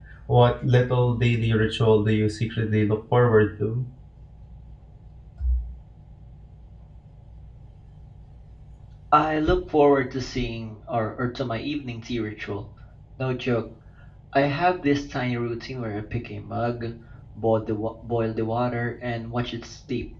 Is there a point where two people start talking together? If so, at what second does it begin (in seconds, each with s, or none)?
none